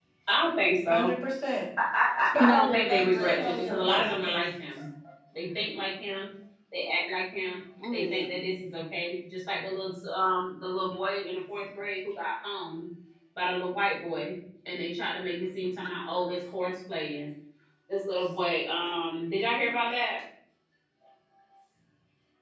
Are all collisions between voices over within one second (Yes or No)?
No